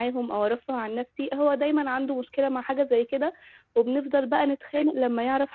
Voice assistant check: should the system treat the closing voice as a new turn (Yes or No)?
No